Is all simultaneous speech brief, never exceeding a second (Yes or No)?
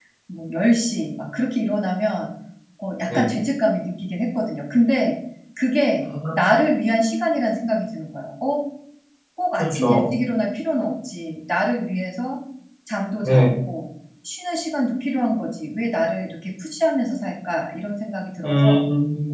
Yes